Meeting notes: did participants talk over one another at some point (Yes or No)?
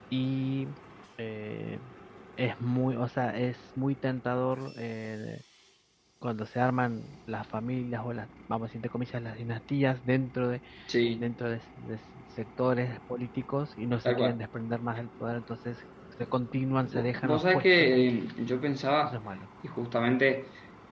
Yes